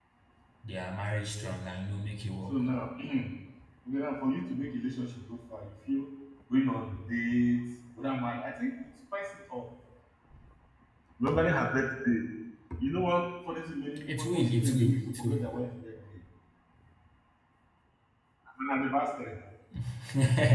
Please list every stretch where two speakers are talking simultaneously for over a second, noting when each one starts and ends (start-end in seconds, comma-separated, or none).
14.1-15.5